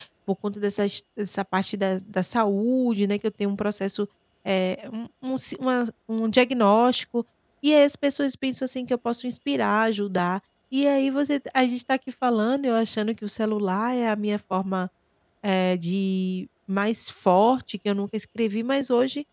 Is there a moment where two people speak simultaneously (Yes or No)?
No